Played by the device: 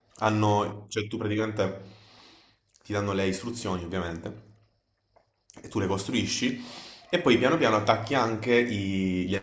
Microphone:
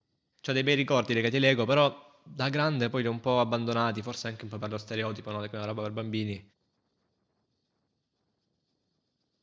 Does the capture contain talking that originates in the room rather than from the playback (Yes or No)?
Yes